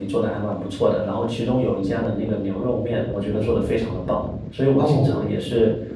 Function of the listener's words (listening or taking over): listening